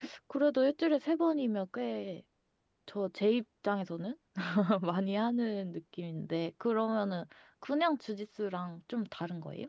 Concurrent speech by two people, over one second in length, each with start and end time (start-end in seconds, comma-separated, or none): none